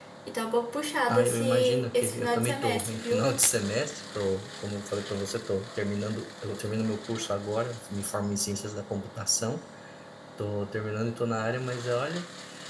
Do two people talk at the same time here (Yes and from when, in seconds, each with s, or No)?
Yes, from 1.1 s